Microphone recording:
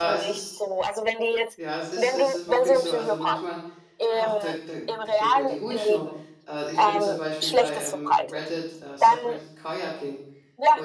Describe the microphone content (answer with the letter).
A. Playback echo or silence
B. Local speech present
B